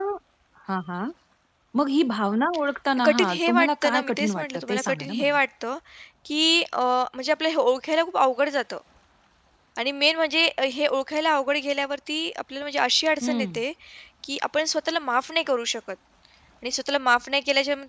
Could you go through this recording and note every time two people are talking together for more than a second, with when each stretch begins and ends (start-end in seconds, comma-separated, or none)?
3.0-5.4